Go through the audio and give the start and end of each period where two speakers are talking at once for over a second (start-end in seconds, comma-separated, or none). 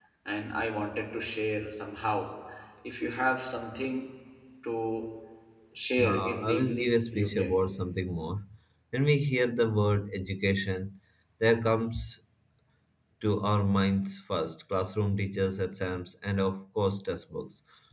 6.0-7.6